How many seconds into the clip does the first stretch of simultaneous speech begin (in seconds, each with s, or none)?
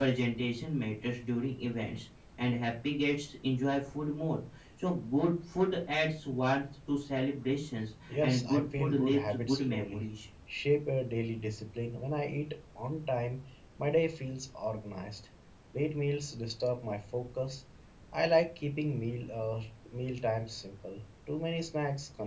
8.1 s